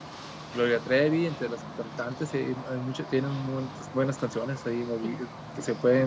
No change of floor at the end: Yes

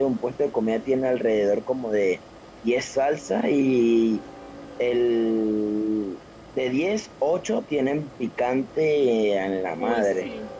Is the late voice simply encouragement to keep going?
No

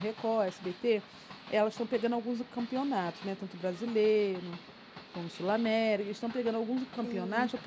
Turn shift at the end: No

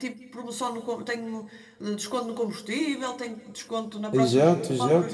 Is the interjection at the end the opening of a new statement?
Yes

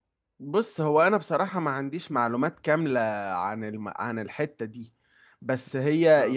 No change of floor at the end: Yes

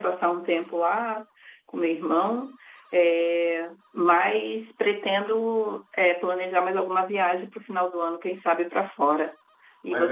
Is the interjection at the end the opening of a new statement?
Yes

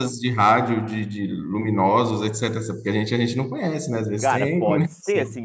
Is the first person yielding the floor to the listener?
Yes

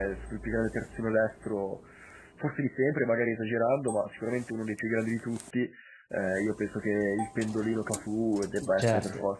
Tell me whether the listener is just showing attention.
No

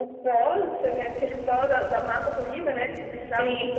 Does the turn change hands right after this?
No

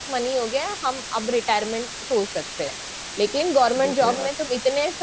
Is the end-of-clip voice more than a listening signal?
No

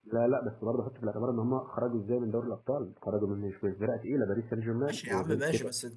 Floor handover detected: Yes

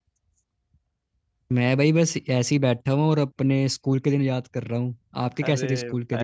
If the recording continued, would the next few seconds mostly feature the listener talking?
Yes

